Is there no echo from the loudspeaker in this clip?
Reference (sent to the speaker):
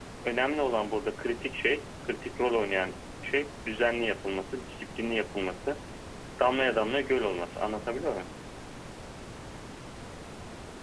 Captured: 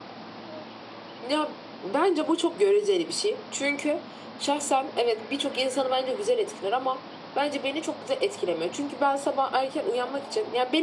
Yes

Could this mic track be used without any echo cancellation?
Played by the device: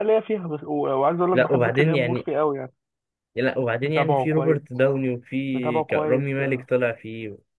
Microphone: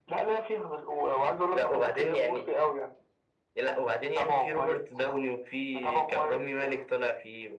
No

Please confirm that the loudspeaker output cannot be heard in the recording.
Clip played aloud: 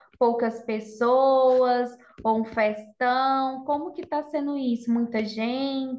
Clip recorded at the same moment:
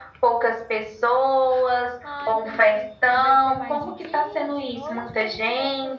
No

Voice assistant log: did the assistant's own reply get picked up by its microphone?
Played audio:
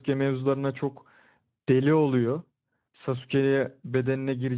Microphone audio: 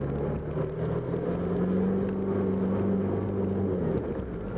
No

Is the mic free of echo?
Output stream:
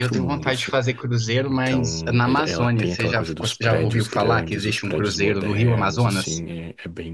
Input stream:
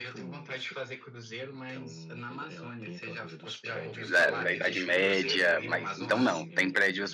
No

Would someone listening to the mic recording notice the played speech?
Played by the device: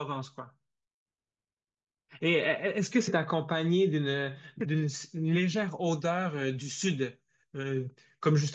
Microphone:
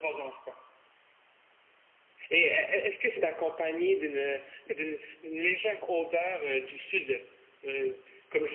Yes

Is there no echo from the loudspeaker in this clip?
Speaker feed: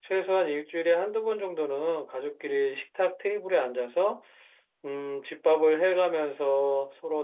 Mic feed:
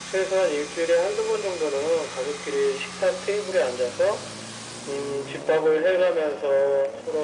No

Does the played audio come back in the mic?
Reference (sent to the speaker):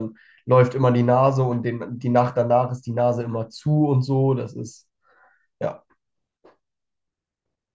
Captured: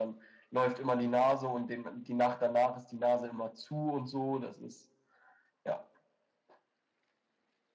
Yes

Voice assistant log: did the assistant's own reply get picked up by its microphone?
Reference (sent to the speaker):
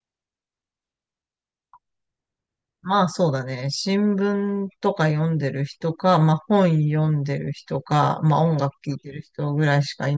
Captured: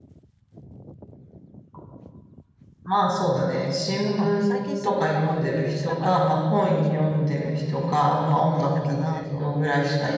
Yes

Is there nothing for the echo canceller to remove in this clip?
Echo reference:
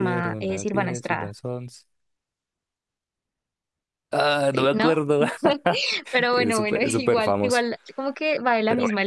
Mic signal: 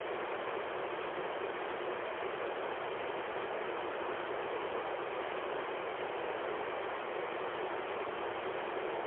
Yes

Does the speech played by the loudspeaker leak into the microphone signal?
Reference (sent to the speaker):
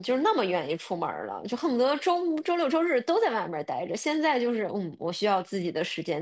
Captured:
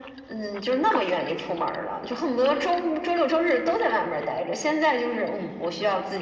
Yes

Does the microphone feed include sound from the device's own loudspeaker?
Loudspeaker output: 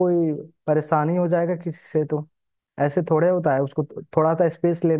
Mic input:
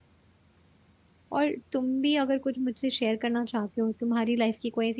No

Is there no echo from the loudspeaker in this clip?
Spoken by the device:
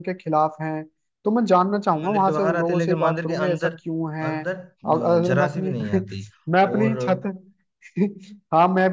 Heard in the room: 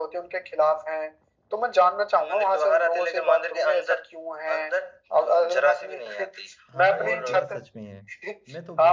No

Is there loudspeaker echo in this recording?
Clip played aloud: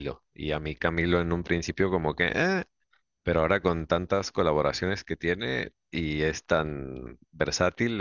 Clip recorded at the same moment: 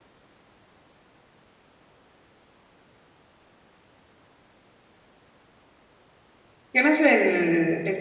No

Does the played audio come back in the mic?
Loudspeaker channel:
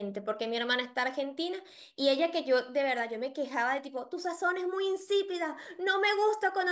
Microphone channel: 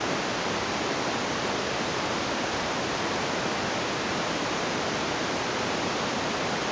No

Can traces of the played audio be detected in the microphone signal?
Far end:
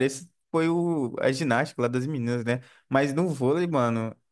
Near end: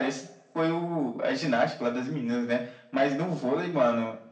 Yes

